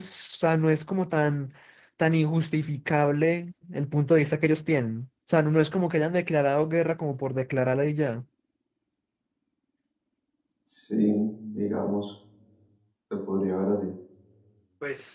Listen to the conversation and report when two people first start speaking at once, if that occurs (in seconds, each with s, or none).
none